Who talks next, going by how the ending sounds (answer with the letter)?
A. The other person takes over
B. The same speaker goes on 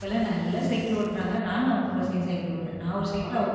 A